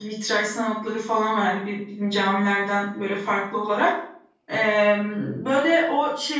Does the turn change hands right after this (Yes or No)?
No